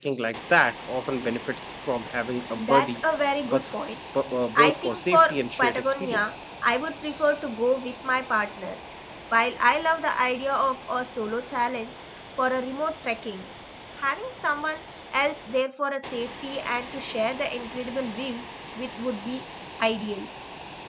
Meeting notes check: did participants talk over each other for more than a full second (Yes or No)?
Yes